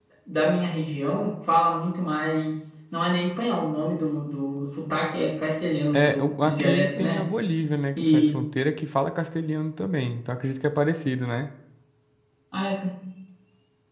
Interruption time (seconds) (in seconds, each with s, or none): 5.9 s